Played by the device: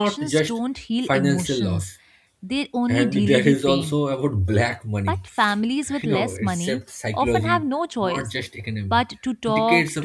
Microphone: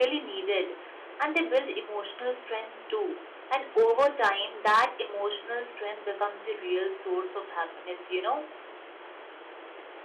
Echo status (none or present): none